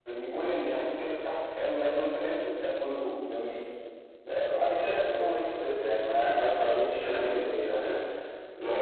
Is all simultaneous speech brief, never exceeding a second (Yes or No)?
No